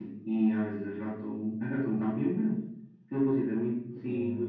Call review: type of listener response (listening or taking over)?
listening